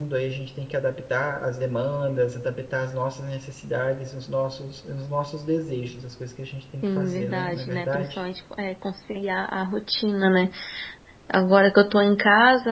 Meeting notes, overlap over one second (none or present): present